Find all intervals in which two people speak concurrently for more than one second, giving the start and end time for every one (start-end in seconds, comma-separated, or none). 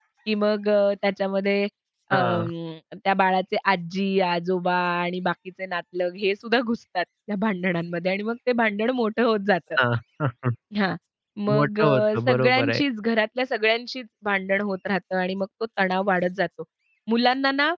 11.5-12.8